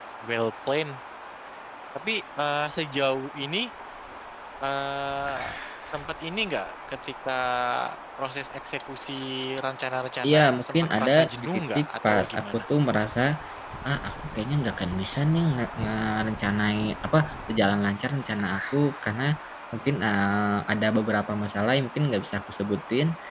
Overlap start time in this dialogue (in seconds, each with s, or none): 10.2 s